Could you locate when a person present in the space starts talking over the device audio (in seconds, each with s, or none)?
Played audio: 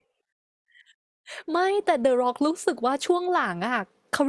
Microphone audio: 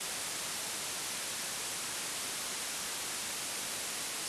none